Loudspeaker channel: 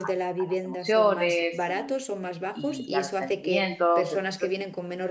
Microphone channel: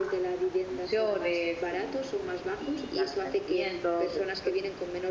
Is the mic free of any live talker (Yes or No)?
Yes